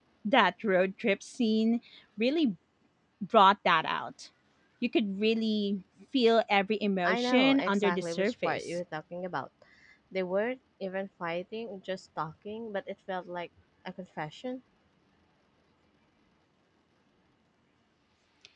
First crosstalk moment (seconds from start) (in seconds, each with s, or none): 7.0 s